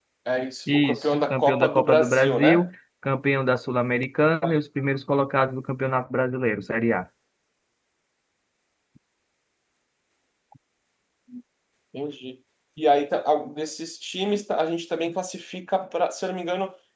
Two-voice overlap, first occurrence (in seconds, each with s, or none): 0.7 s